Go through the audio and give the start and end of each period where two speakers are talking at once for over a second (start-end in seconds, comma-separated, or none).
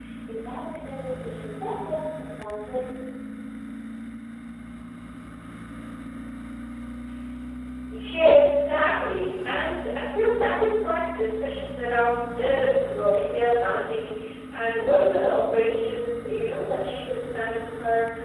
none